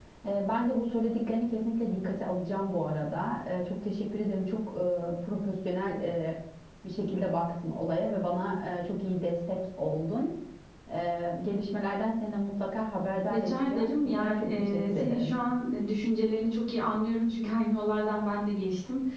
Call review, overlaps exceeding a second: present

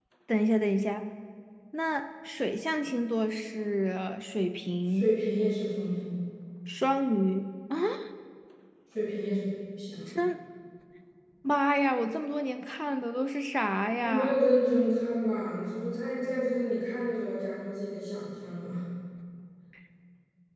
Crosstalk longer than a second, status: none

